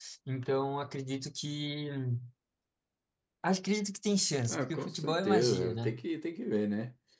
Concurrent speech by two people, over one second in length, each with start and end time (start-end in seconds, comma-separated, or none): 4.5-6.0